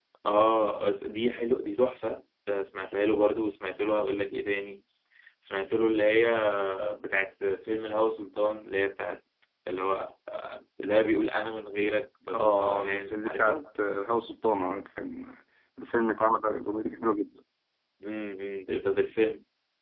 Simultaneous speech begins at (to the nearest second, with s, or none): 12 s